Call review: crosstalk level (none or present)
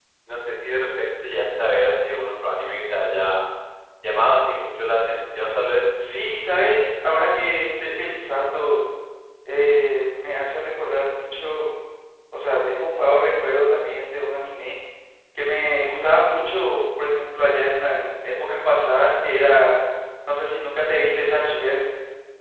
none